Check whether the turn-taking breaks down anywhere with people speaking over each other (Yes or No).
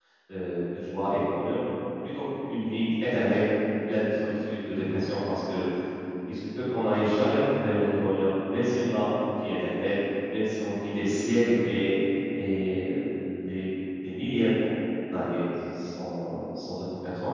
No